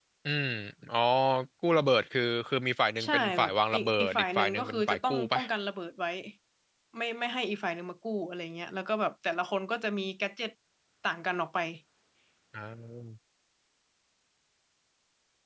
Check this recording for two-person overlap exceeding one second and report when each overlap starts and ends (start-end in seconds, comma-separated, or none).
3.0-5.4